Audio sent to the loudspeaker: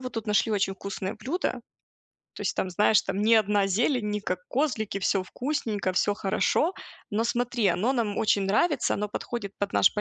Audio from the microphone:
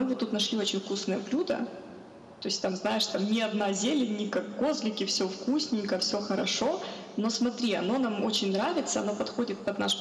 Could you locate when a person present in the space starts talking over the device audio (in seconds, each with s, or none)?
none